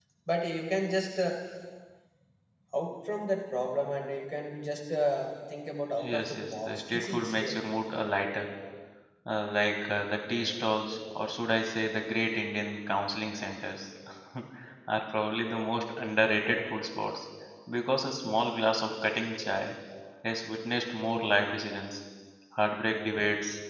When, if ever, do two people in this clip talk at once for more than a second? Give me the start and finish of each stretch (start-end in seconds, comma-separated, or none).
6.0-7.6